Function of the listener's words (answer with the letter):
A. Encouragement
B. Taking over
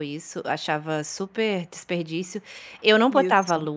A